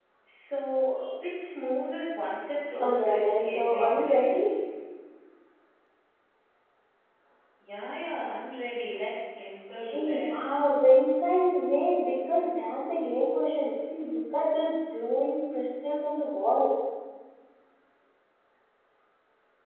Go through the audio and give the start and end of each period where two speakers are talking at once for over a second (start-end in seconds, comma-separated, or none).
2.8-4.4